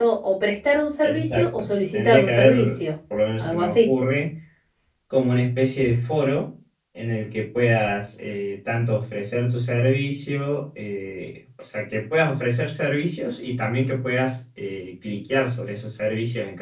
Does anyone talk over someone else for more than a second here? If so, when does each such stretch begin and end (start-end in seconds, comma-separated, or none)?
1.0-2.8